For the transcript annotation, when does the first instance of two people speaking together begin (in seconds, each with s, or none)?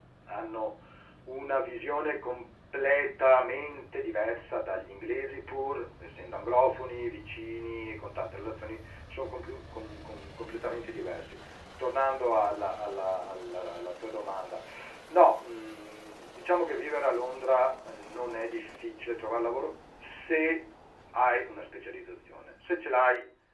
none